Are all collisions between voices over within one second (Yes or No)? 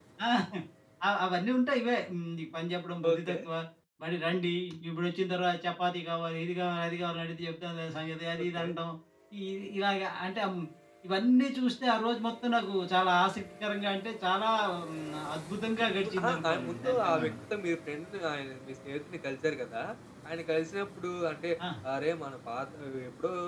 No